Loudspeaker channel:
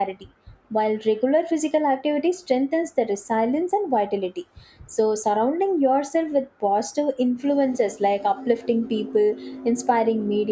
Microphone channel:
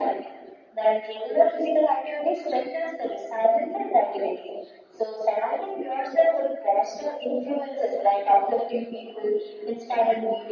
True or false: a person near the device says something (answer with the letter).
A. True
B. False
B